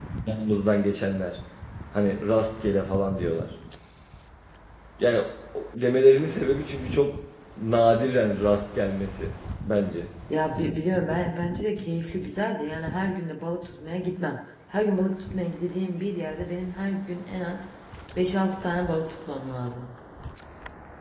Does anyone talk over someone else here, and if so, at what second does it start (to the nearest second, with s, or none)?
none